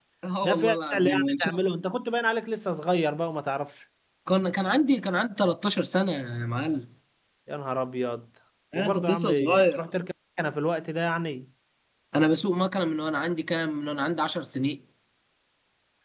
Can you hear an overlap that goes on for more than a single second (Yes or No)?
Yes